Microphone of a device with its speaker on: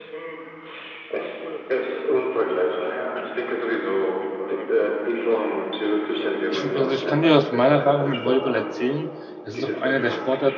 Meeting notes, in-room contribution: present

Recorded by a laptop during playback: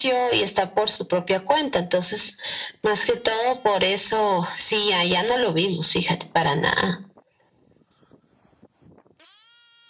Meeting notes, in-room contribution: none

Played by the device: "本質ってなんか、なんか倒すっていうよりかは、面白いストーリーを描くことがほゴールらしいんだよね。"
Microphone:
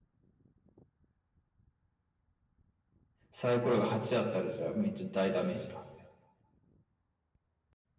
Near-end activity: present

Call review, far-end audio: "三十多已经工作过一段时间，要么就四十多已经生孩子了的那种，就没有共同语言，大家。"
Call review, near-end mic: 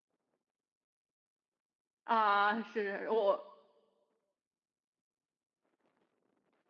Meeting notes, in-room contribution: present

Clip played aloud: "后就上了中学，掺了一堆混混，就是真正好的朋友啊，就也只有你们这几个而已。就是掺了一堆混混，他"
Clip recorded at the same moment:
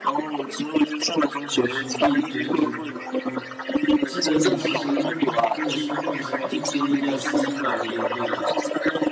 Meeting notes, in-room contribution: present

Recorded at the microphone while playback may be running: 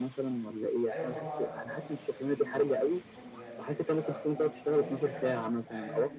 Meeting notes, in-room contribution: present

